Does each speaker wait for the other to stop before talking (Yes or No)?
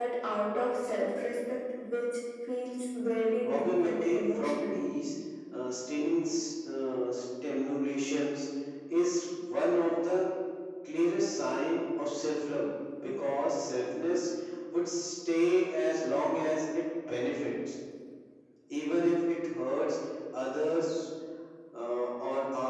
No